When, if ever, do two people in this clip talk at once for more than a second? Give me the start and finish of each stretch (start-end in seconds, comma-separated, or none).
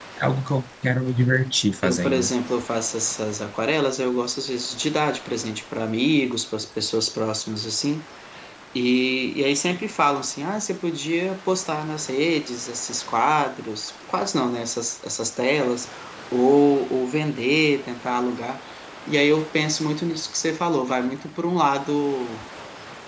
none